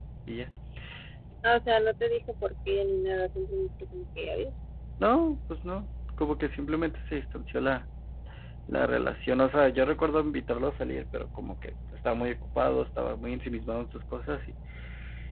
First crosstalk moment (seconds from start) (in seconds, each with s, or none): none